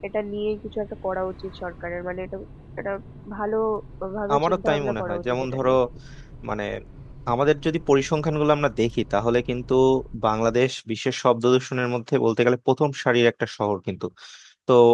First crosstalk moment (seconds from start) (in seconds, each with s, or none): 4.3 s